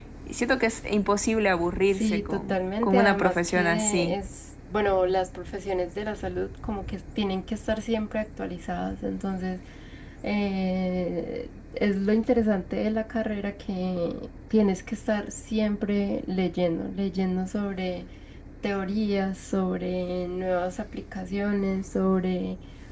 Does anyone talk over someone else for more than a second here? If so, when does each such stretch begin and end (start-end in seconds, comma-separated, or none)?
1.9-4.2